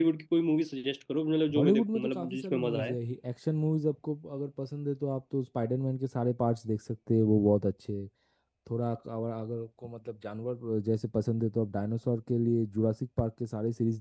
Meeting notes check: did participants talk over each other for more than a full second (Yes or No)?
Yes